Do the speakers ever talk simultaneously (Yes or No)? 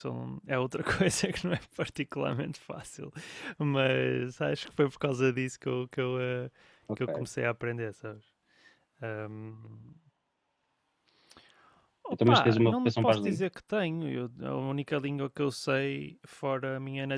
Yes